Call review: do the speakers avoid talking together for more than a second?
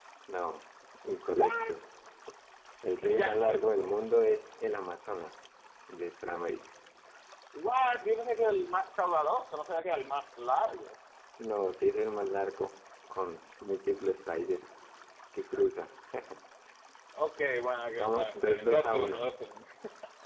No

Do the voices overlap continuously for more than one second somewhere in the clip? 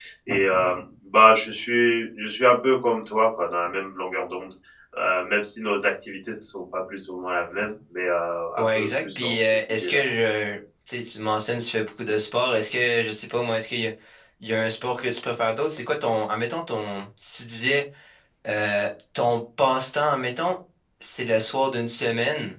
Yes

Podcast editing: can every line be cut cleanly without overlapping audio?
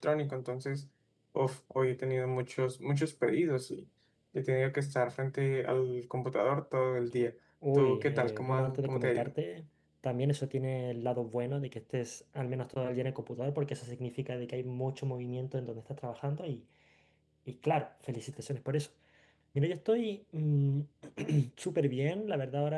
No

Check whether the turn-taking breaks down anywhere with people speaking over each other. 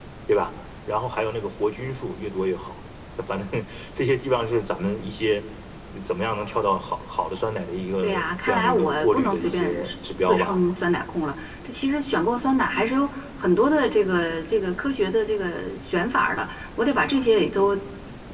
Yes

